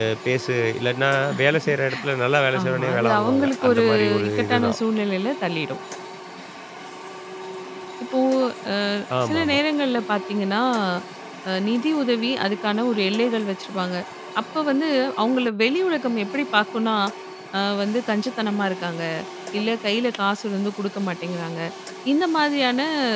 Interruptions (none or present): present